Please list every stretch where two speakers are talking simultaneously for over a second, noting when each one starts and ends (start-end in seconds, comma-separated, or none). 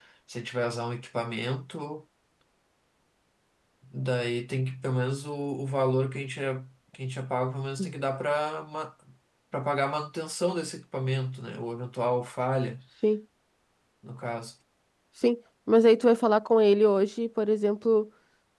none